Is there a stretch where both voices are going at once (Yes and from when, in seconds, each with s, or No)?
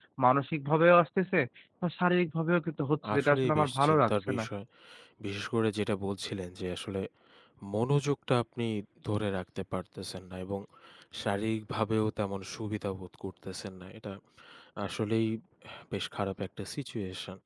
Yes, from 3.0 s